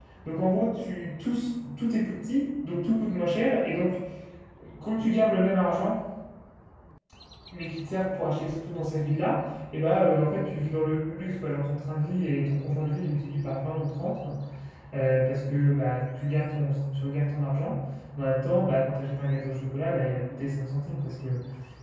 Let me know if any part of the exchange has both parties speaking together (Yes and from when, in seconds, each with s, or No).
No